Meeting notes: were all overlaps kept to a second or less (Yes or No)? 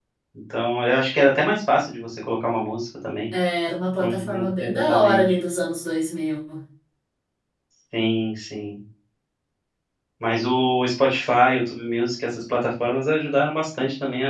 No